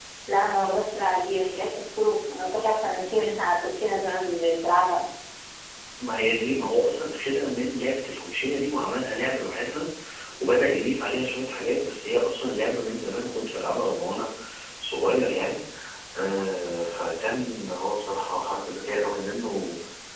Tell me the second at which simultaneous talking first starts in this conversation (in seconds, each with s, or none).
none